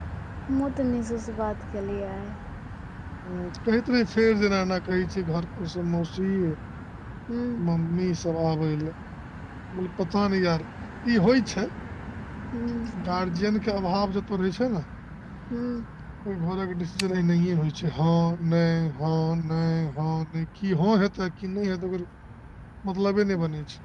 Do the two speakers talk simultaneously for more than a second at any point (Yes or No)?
No